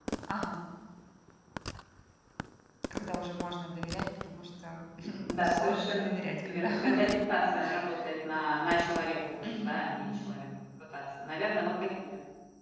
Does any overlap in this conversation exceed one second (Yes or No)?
Yes